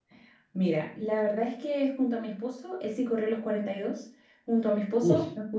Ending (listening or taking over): listening